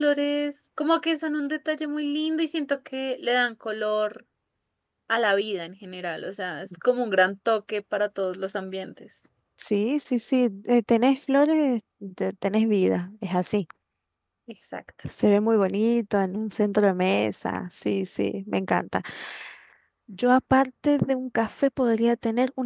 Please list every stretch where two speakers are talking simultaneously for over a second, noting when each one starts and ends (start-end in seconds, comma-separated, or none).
none